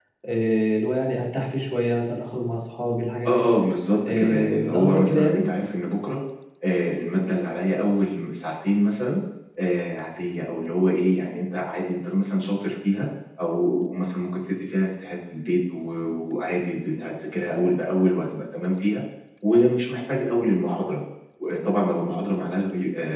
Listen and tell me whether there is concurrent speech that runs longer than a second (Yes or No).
Yes